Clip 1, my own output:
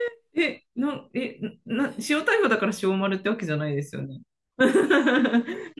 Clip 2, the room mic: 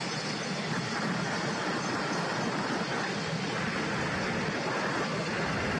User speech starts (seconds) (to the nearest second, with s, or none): none